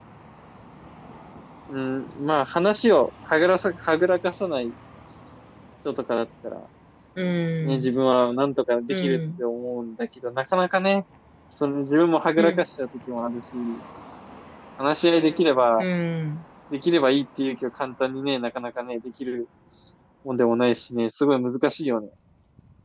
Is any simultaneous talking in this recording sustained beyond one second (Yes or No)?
No